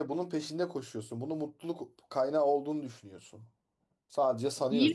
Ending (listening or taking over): taking over